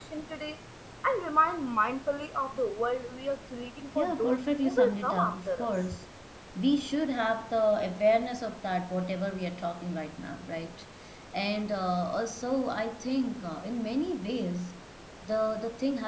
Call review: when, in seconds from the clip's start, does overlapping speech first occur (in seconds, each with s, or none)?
4.0 s